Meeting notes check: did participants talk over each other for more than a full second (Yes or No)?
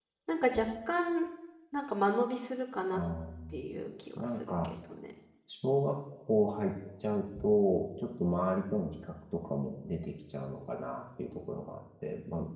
No